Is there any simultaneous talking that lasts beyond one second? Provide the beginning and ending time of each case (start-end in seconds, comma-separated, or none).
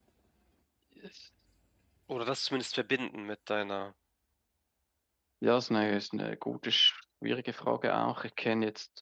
none